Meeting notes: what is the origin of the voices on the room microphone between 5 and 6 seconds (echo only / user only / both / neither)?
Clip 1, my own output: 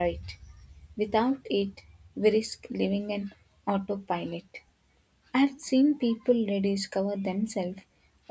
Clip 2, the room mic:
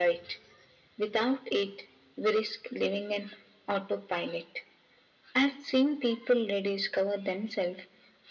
echo only